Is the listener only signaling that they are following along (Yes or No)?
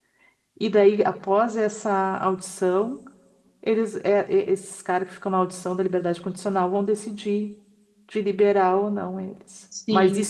Yes